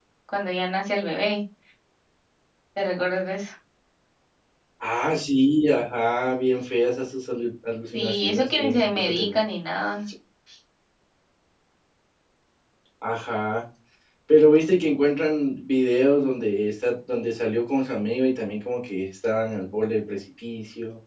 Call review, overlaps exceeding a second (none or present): present